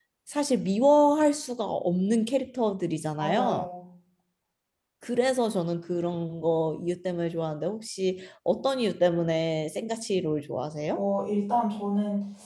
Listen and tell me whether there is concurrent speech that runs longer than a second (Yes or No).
No